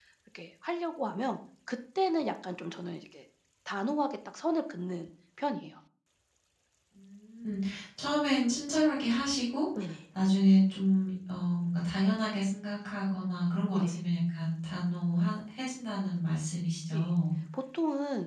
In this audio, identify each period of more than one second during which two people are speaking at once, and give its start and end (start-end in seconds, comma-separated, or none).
none